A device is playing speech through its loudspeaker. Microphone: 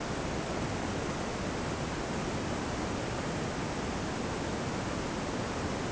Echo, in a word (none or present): none